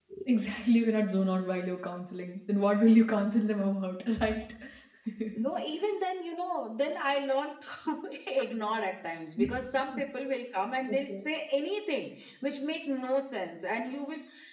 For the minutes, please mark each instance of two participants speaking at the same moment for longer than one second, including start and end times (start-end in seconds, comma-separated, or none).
none